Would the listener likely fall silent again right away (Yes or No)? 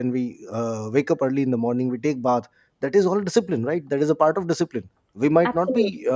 Yes